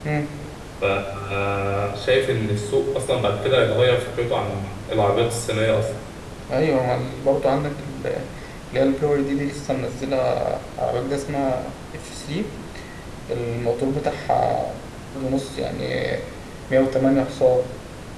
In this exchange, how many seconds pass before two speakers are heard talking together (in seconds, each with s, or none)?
none